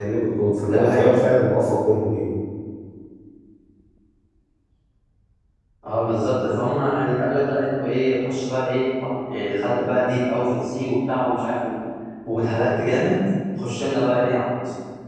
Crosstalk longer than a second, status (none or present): none